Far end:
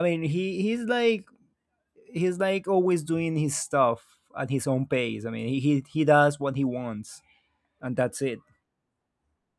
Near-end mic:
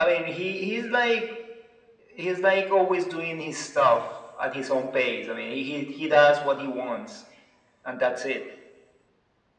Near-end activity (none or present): none